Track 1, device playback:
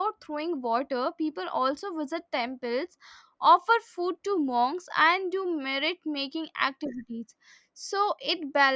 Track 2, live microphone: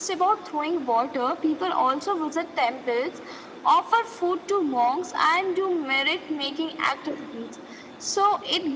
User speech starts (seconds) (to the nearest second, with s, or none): none